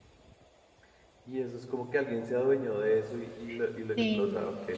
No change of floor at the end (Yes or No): No